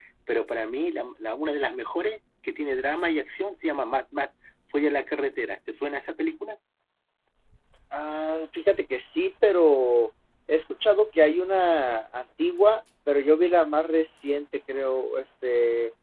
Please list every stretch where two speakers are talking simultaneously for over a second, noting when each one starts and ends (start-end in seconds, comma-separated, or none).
none